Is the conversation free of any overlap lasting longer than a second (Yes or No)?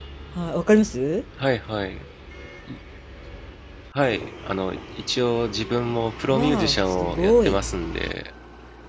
No